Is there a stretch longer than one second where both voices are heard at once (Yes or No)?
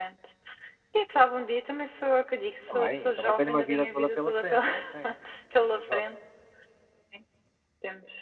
Yes